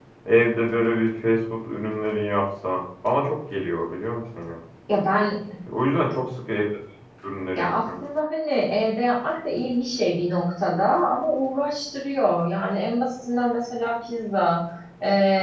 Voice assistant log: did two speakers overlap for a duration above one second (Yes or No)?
No